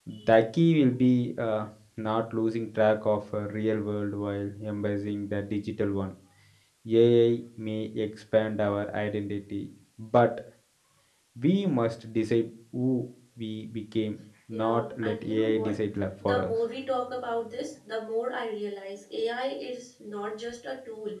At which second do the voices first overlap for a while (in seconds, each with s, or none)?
14.5 s